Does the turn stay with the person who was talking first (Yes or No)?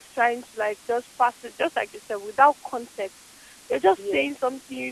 Yes